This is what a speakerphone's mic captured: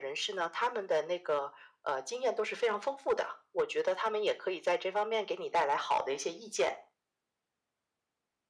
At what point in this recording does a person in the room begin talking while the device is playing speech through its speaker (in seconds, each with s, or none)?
none